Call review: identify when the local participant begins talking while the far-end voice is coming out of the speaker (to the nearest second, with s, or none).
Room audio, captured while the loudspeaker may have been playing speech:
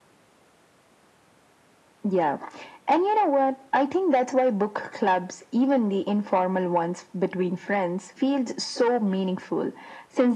none